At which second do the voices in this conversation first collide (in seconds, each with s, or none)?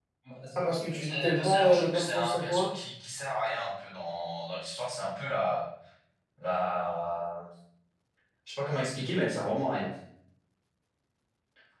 0.6 s